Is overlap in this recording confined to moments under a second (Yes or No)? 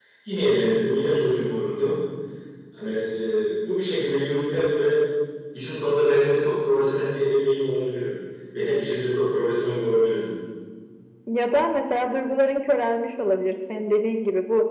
Yes